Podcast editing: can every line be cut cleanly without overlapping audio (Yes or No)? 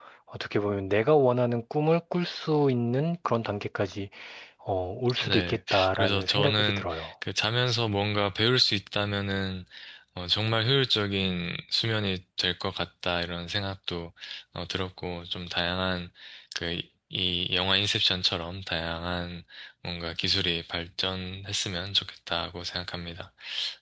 No